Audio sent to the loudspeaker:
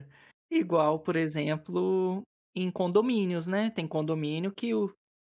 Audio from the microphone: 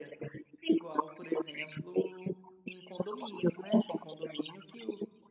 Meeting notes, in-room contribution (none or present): none